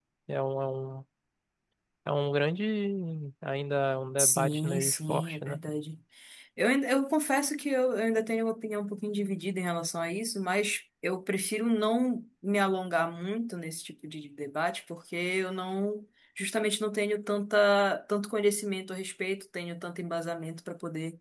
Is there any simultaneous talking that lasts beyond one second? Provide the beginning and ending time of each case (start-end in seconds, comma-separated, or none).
4.2-5.6